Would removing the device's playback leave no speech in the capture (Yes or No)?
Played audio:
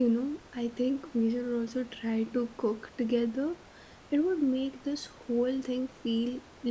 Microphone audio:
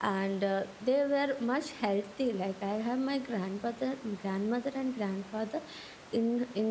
No